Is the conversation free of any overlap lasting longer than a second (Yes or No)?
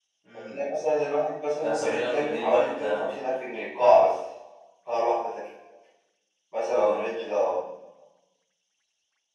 No